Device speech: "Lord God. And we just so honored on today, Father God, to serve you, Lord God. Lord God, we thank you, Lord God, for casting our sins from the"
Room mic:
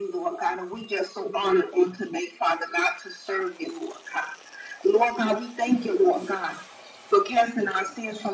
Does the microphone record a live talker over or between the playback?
No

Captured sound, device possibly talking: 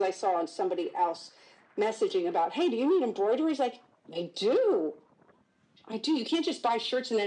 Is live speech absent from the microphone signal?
Yes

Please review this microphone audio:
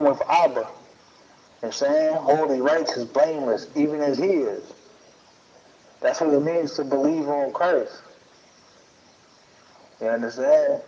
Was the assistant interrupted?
No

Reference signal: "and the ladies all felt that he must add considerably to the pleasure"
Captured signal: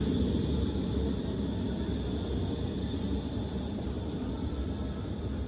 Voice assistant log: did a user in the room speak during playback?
No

